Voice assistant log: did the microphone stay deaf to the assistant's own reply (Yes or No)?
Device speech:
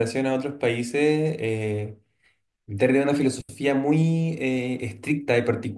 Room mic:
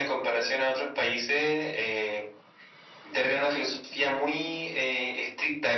No